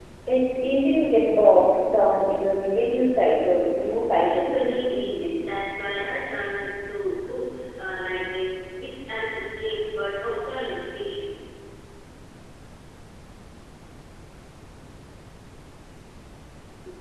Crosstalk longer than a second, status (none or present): present